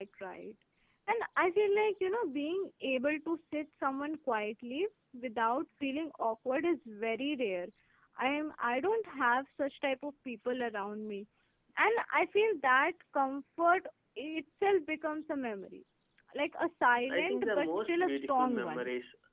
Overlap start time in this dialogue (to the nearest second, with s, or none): 17 s